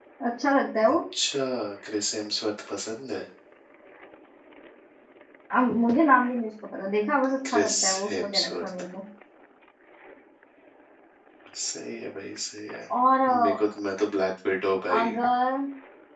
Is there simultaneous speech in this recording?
Yes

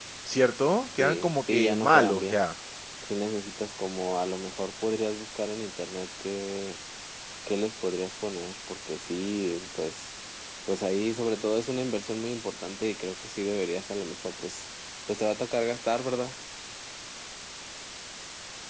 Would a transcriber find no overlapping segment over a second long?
No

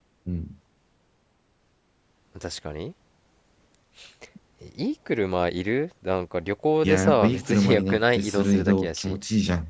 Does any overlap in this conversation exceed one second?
Yes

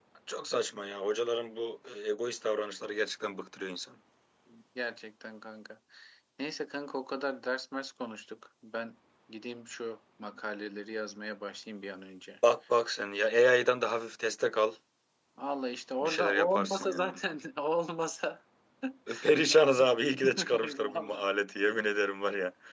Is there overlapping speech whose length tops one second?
Yes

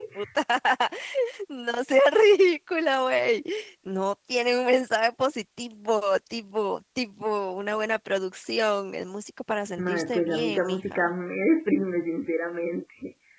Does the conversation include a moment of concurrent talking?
Yes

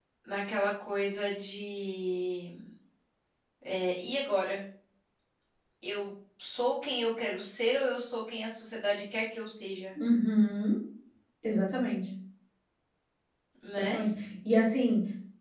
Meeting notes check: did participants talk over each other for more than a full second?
No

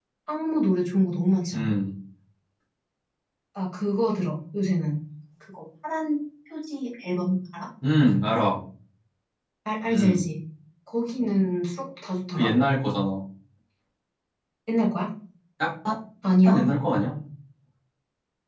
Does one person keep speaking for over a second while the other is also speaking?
No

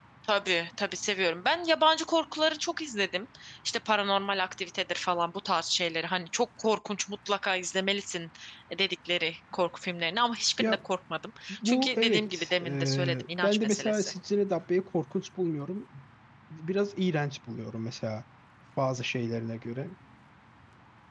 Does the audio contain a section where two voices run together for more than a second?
Yes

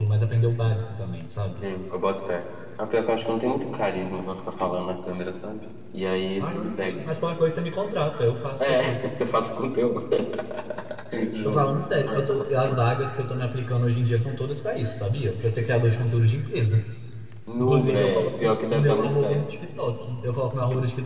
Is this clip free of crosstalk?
No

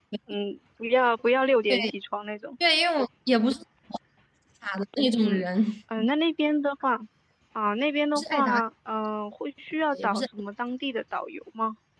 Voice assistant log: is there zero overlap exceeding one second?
Yes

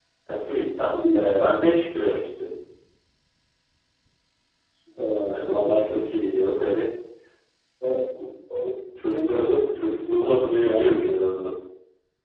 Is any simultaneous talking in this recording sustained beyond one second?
Yes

